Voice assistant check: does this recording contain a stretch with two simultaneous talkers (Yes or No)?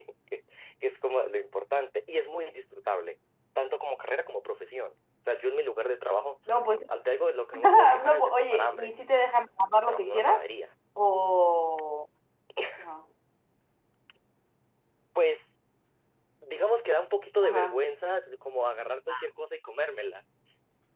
Yes